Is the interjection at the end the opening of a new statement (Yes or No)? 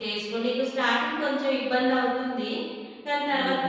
No